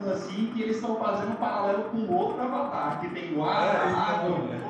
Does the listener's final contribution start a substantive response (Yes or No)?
Yes